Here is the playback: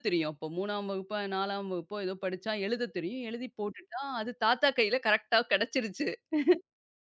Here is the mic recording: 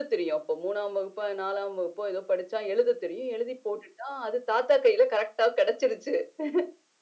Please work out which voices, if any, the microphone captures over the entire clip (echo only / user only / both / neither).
echo only